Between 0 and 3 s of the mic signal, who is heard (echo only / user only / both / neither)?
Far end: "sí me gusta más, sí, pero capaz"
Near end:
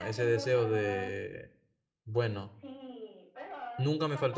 both